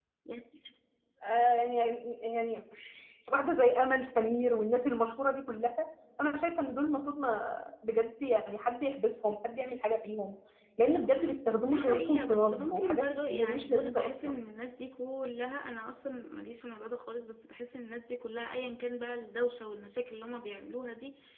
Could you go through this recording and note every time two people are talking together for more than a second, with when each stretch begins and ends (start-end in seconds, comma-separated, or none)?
11.7-14.4